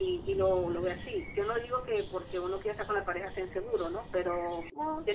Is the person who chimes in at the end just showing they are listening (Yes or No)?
Yes